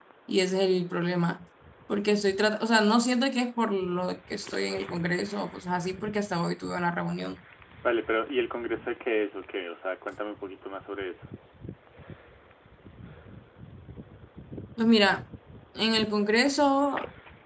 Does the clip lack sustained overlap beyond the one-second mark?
Yes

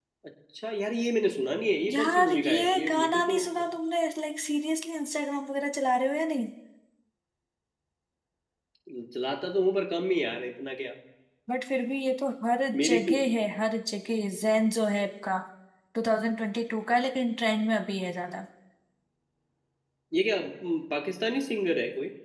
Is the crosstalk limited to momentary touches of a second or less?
No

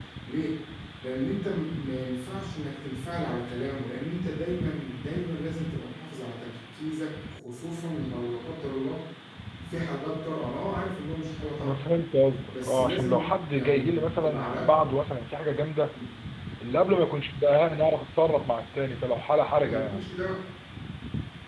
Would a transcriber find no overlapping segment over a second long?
No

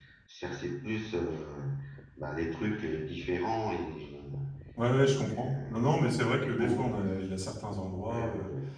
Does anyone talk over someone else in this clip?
Yes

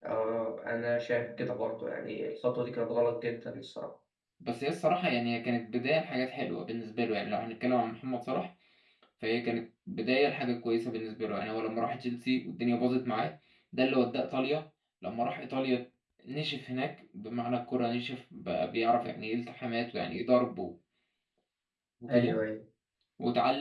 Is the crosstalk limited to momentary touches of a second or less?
Yes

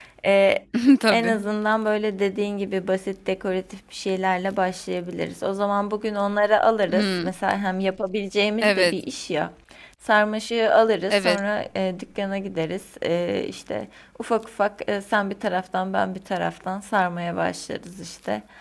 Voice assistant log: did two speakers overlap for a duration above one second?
No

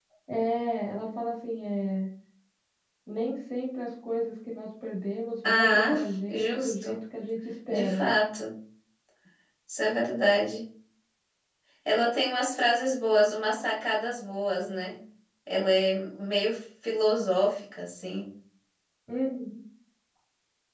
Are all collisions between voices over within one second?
No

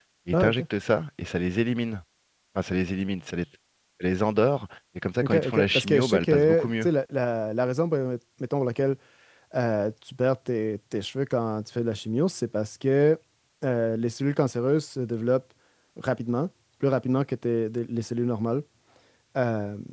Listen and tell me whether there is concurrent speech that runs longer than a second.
Yes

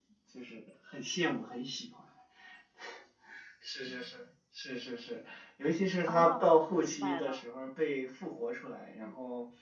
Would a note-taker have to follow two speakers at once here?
Yes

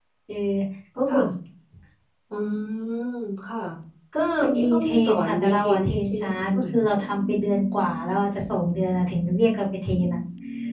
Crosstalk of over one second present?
Yes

